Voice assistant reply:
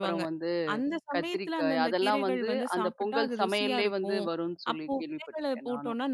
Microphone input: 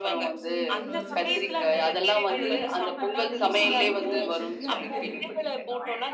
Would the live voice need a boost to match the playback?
Yes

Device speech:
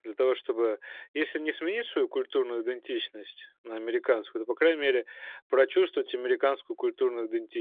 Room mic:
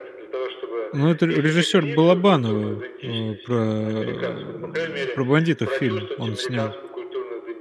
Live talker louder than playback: Yes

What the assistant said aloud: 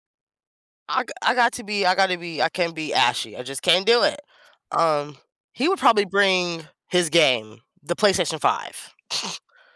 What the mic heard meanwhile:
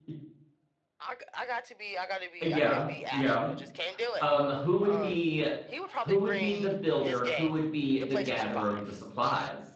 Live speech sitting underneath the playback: No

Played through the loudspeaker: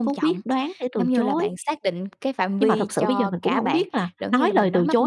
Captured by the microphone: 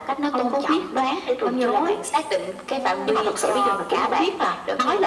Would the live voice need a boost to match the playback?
Yes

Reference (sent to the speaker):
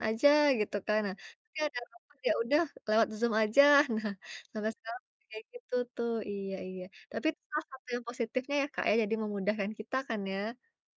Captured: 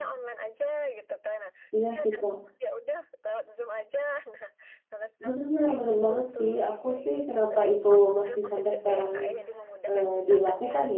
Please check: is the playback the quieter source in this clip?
Yes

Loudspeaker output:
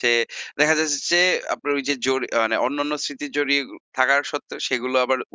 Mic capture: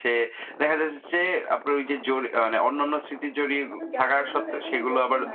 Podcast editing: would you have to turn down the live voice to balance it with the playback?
No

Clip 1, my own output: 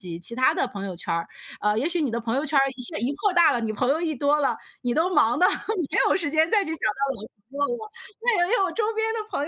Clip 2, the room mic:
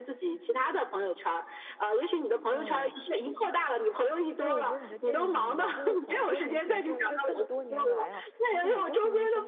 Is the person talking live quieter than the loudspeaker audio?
Yes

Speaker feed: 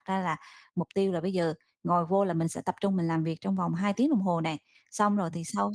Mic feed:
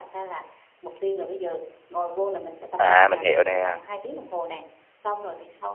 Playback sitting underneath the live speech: Yes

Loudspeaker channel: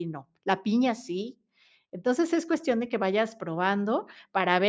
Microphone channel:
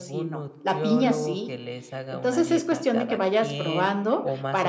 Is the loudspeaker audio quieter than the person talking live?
No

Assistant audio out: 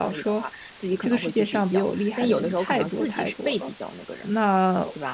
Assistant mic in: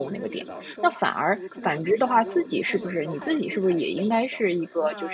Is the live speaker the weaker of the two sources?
No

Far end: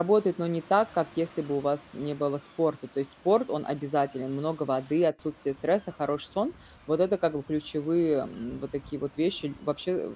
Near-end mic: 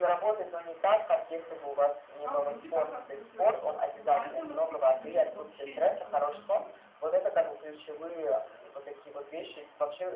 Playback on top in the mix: Yes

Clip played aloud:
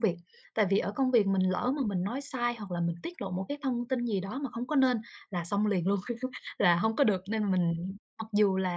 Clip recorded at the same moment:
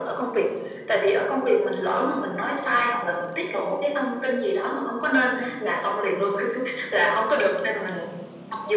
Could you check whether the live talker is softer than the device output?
Yes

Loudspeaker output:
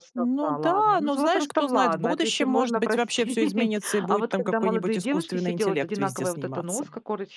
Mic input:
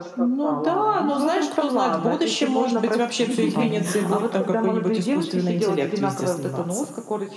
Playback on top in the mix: Yes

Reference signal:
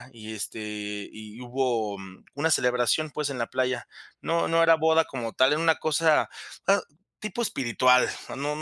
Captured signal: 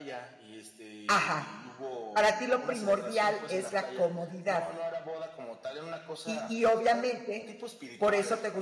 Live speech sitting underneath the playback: No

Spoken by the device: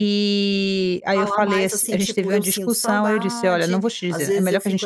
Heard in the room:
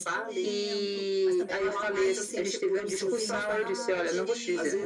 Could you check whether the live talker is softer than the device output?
Yes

